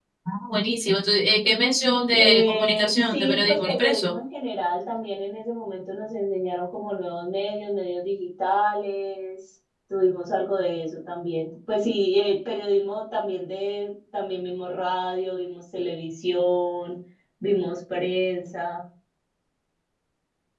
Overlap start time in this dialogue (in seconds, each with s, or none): 2.1 s